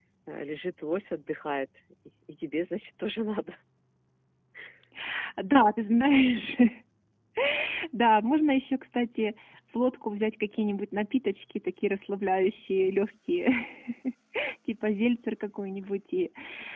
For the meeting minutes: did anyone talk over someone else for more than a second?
No

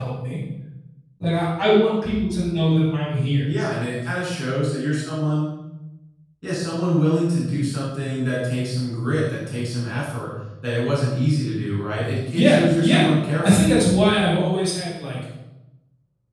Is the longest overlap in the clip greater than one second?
Yes, from 12.3 s

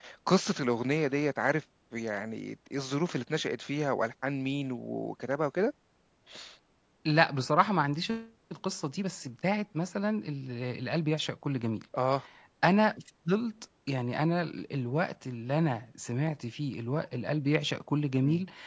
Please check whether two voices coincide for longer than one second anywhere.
No

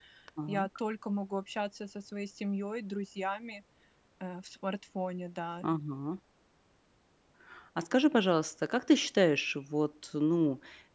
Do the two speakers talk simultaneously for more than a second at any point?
No

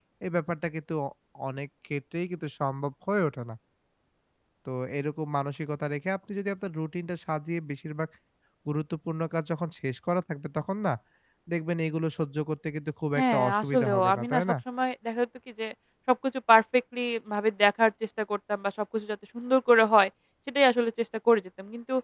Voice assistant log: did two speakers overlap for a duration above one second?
Yes, from 13.2 s

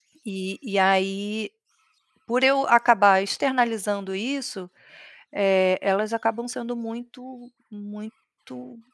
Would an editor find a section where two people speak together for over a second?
No

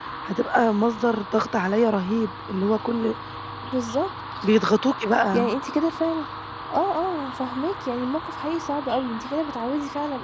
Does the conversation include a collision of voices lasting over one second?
No

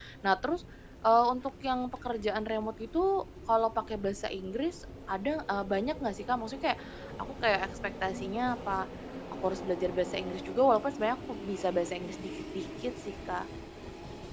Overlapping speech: No

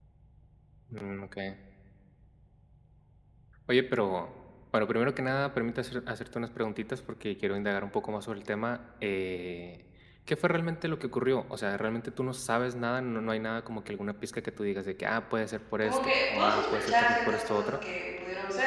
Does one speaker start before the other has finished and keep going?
Yes, from 15.8 s

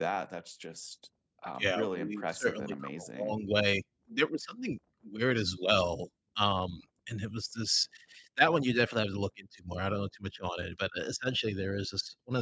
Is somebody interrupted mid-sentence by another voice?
Yes, from 1.6 s

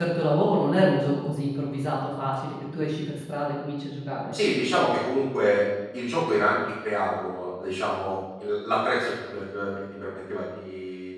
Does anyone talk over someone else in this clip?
No

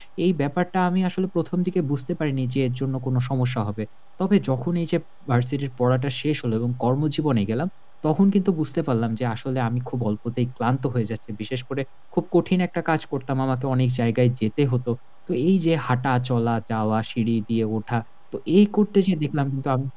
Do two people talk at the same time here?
No

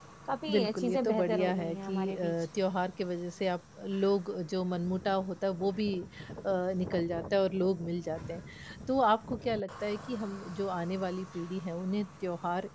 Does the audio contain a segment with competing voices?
Yes, from 0.5 s

